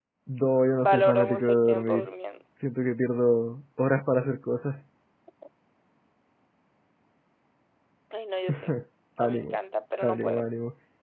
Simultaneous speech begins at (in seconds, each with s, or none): 0.8 s